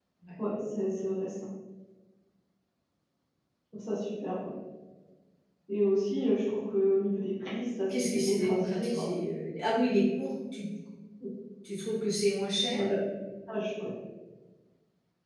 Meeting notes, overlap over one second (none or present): present